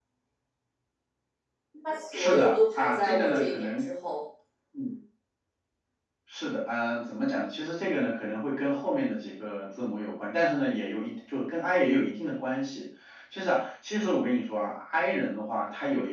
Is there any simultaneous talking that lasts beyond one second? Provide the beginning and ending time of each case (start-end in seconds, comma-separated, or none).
2.1-3.8